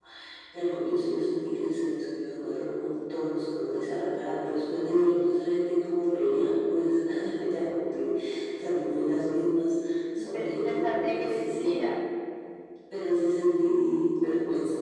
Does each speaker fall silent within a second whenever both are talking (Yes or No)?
No